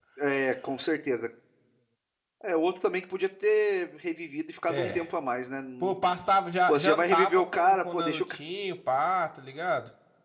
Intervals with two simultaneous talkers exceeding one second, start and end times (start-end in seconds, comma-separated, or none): 6.7-8.4